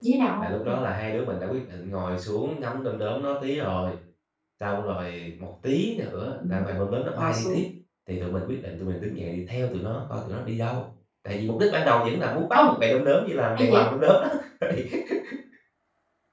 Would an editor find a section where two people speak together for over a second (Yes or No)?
No